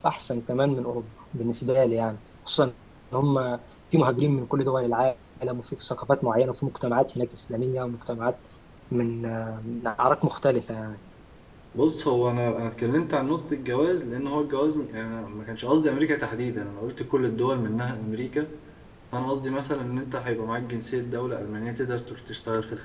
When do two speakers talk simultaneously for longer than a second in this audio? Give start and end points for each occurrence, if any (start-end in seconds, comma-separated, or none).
none